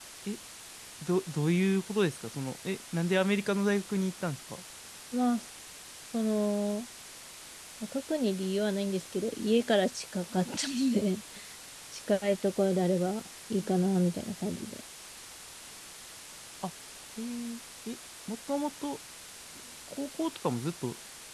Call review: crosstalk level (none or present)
none